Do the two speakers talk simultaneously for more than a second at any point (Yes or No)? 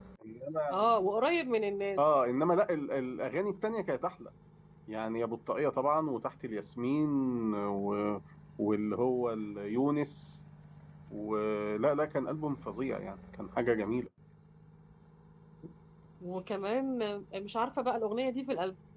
No